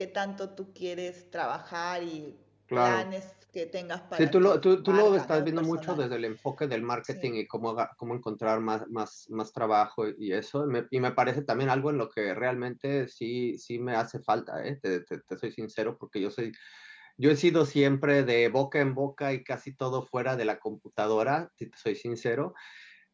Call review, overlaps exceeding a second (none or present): present